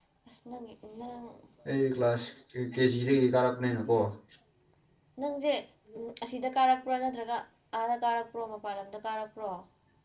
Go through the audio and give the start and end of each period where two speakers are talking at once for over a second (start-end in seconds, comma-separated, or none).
none